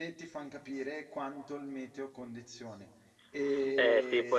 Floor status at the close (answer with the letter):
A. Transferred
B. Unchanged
A